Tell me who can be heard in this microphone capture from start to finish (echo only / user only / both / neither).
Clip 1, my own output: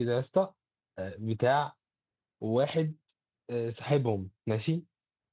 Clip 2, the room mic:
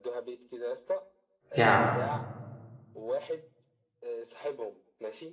both